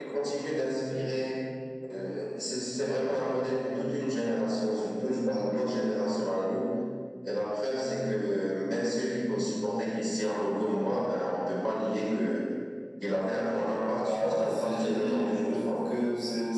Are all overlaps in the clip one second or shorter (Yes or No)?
No